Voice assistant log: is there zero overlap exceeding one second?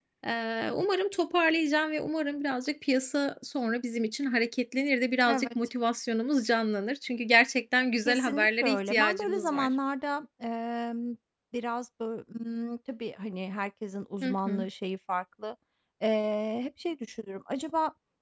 No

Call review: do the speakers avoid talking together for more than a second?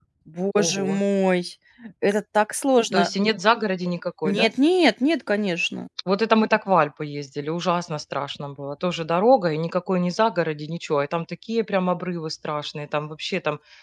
Yes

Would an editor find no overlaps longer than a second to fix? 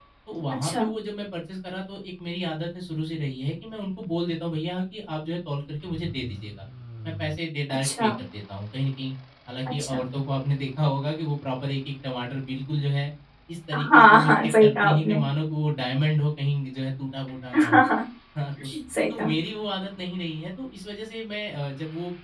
No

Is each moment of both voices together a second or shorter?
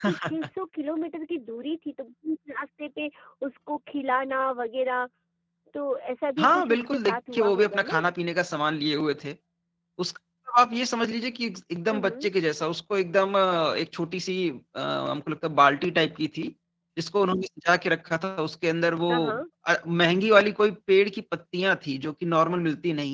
No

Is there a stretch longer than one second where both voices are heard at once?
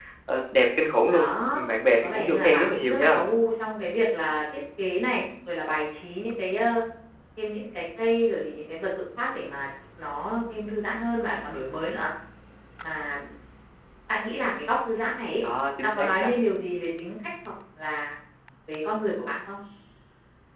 Yes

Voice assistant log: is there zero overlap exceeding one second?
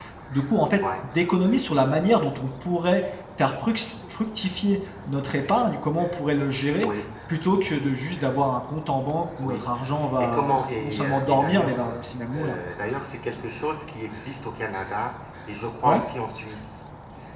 No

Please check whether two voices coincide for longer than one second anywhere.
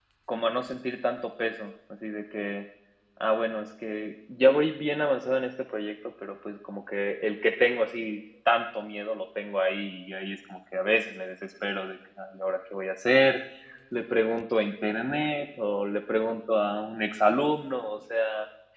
No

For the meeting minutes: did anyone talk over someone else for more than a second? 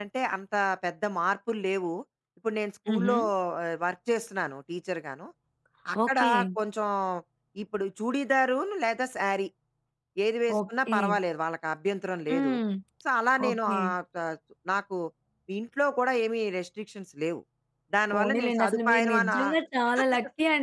Yes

